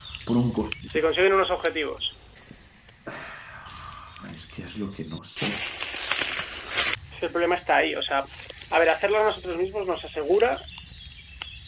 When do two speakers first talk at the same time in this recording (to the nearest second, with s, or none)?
none